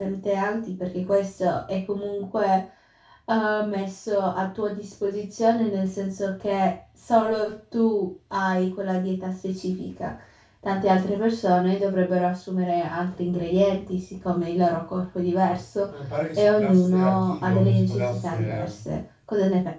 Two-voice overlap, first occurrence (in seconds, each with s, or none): 16.4 s